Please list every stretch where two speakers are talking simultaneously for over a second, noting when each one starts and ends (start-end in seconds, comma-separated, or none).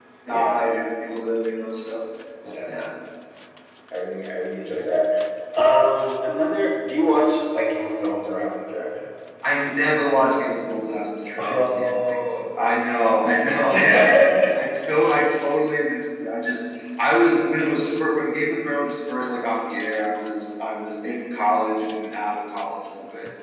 11.4-12.8